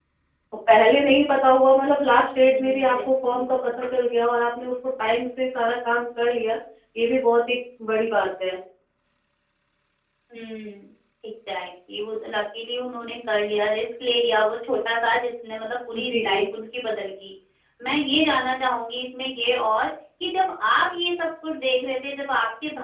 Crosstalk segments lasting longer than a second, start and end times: 2.4-3.8

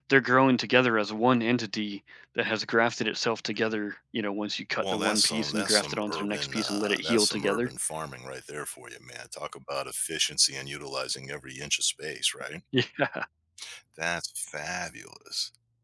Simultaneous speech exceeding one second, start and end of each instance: 4.8-7.7

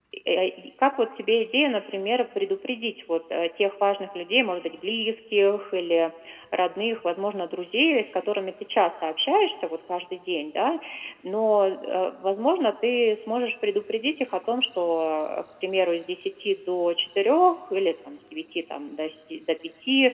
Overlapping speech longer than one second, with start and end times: none

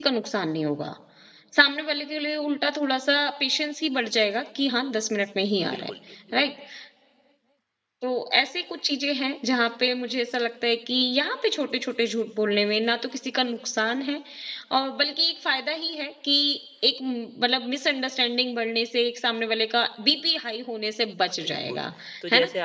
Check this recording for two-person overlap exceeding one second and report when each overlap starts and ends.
none

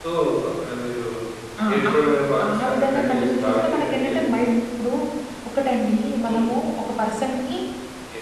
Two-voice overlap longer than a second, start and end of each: 2.5-4.5

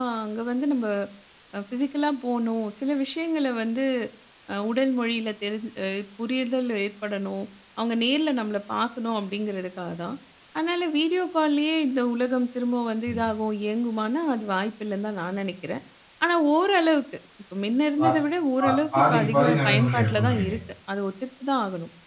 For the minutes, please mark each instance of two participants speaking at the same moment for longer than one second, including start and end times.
18.6-20.5

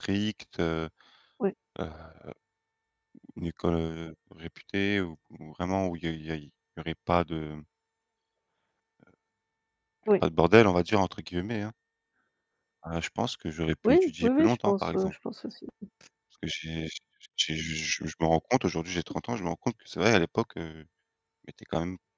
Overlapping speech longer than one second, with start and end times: 13.8-15.1

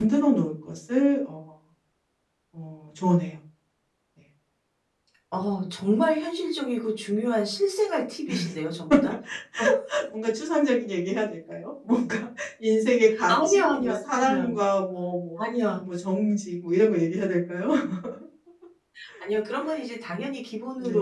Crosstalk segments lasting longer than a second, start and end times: 13.3-14.5

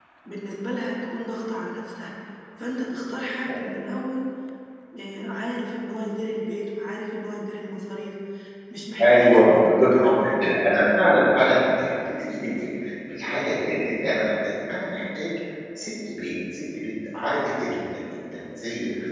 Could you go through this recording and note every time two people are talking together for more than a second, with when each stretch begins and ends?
9.0-10.4

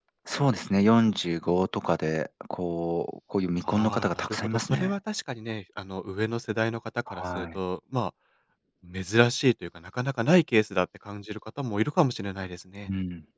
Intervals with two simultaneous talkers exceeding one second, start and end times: 3.6-4.9

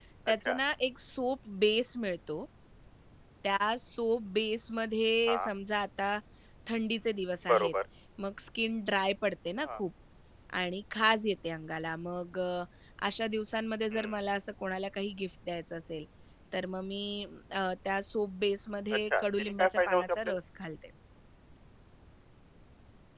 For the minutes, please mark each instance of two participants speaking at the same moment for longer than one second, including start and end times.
19.1-20.4

